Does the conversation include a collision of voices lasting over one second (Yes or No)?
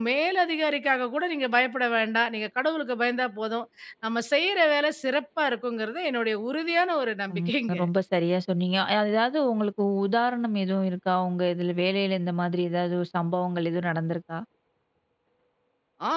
No